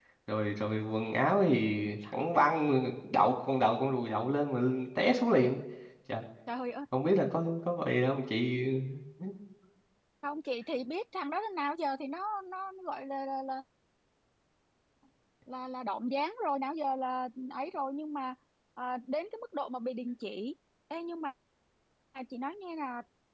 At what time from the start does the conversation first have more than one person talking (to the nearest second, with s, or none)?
none